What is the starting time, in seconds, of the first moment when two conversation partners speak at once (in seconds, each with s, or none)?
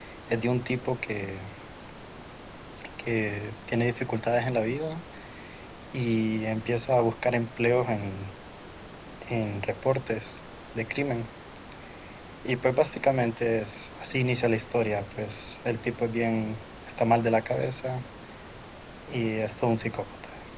none